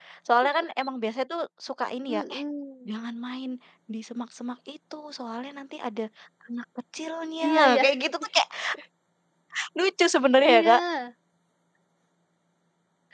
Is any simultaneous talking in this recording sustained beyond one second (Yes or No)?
No